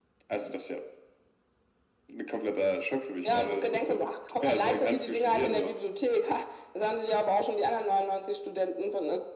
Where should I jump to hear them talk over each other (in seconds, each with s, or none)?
3.2 s